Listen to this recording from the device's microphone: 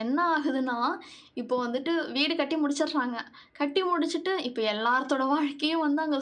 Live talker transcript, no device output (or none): none